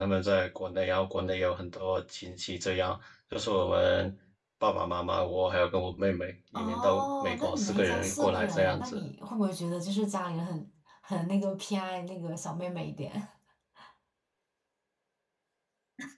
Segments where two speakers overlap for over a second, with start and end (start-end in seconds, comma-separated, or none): 6.5-9.0